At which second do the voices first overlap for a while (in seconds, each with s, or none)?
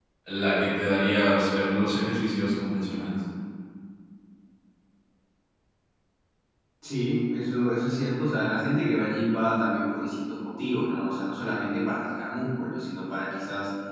none